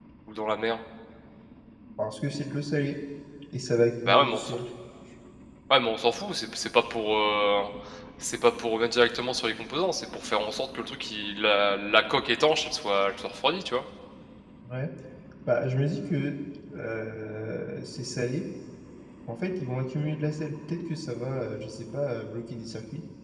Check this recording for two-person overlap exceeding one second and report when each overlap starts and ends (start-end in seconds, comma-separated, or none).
none